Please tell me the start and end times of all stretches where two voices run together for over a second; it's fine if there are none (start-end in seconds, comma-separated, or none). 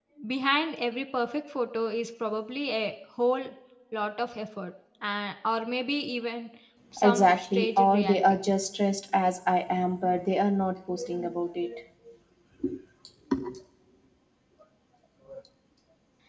7.0-8.2